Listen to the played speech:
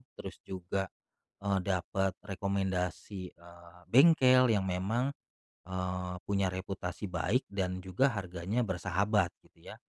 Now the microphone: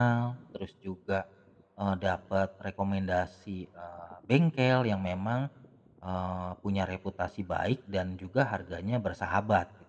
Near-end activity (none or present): none